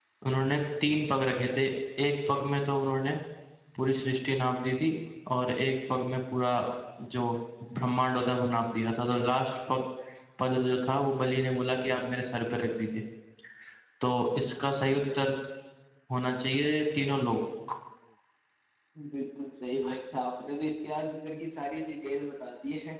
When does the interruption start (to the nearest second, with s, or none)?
none